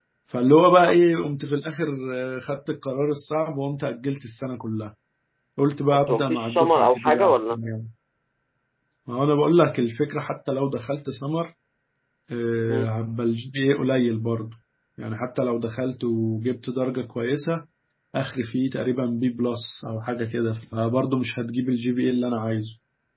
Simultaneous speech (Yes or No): Yes